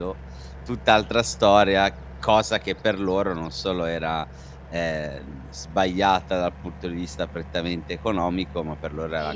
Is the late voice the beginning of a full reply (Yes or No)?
No